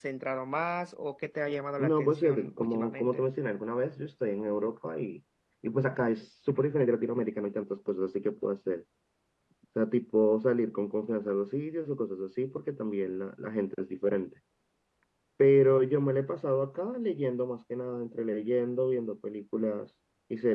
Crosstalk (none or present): present